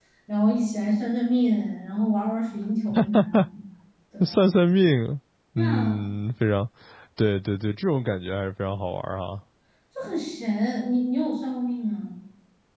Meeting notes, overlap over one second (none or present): none